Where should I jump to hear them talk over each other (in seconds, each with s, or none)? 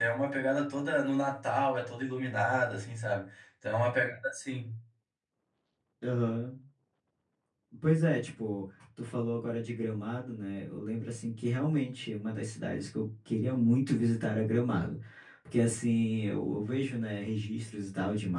none